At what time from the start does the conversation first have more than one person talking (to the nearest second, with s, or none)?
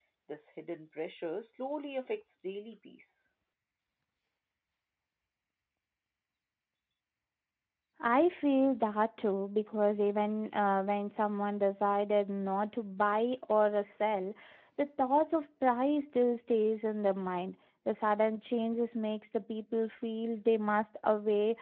none